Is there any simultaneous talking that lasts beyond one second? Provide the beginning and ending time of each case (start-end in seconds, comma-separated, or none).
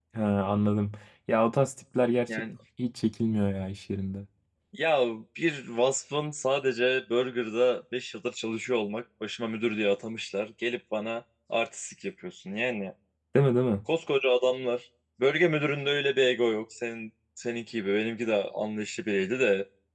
none